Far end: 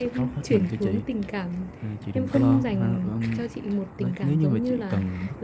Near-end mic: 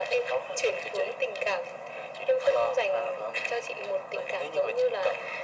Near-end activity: none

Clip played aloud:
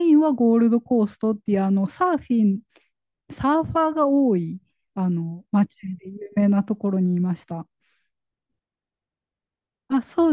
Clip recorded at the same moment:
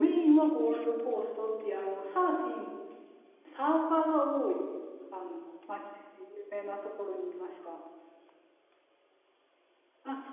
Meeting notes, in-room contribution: none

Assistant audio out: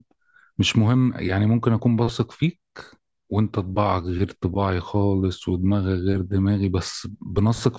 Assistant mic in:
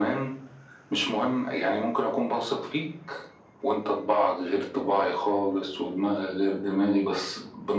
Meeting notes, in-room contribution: none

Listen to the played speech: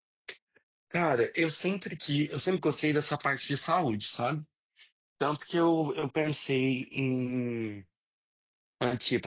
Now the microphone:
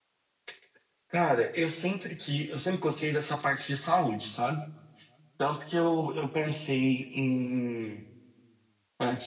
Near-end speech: none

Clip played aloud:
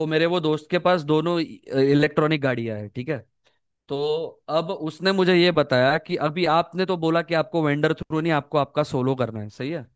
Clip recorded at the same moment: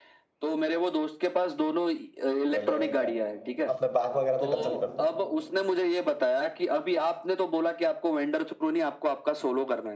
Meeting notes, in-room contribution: present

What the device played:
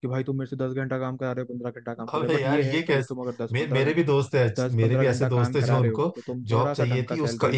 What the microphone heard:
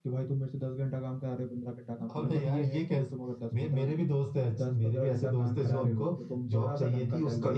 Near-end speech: none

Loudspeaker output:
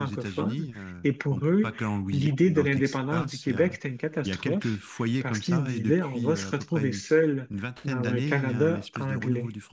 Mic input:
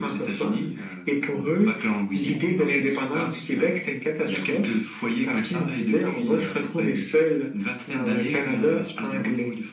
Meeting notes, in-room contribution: none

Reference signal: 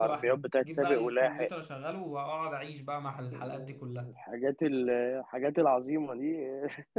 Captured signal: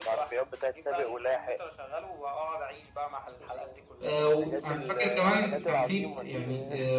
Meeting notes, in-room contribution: present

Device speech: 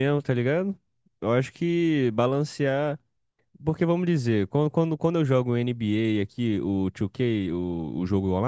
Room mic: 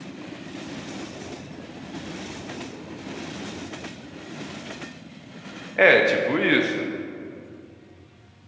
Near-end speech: present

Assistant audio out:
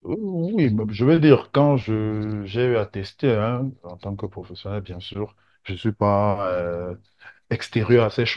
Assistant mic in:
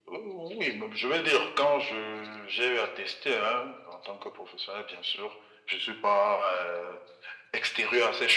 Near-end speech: none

